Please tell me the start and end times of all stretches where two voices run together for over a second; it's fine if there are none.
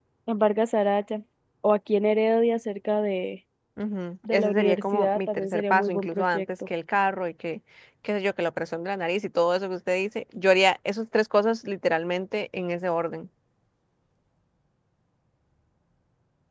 4.3-6.4

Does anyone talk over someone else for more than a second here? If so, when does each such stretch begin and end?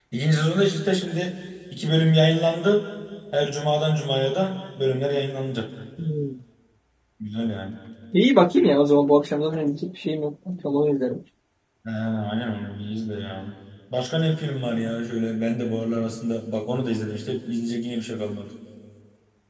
none

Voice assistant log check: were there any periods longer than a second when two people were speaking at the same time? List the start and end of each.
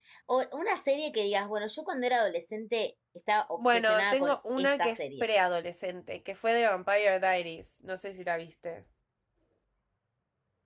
3.6-5.3

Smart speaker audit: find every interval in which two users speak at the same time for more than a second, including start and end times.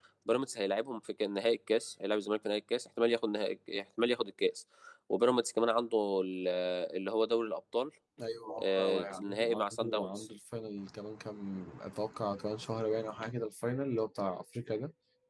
8.6-10.3

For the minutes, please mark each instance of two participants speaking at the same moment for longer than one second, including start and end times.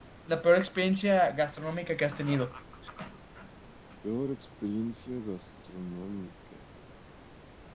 none

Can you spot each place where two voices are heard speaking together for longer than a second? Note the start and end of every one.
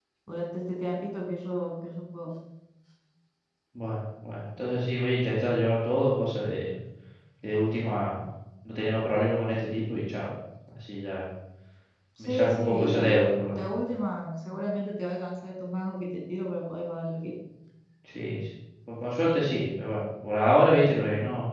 12.2-13.7

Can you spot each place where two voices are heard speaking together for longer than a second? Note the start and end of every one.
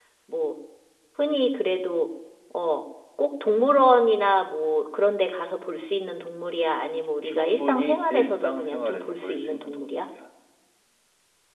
7.3-10.1

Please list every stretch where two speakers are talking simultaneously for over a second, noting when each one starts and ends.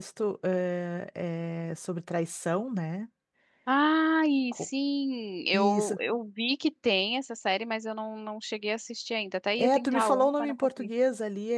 9.6-10.9

